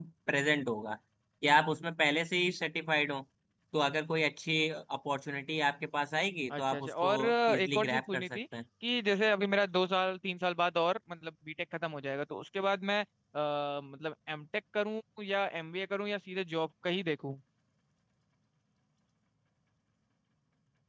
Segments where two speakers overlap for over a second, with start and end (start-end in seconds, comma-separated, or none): 6.5-8.4